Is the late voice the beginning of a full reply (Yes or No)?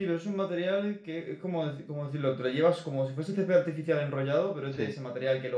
No